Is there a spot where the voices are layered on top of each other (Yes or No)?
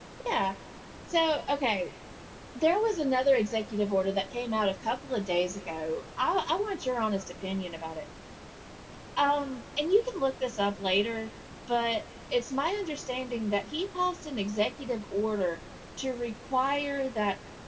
No